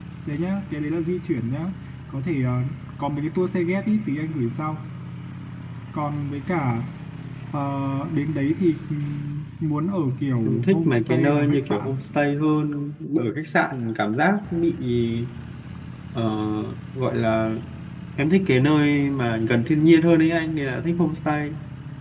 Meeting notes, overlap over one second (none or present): present